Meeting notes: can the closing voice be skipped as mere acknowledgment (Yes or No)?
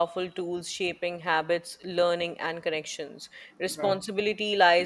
Yes